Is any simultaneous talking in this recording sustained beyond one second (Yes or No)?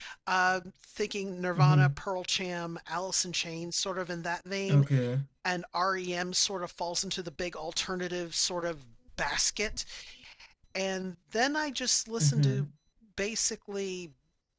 No